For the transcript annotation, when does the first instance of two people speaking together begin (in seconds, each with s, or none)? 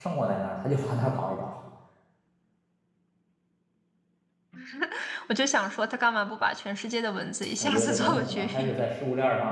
7.6 s